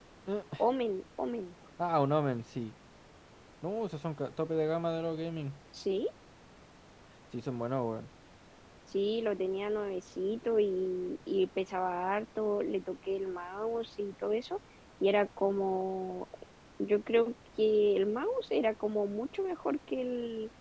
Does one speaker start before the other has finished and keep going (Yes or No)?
No